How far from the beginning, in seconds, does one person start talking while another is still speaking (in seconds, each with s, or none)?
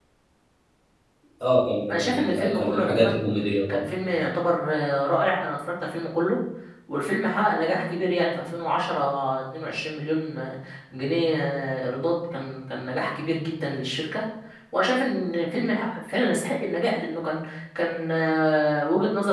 1.9 s